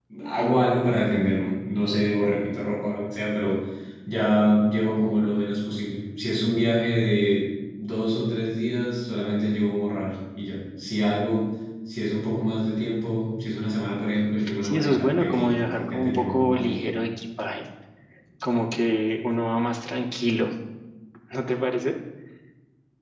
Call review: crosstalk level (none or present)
present